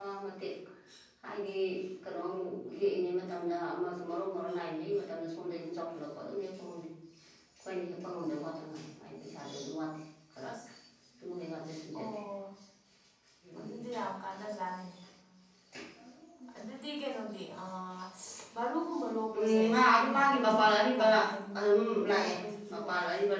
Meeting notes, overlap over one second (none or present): present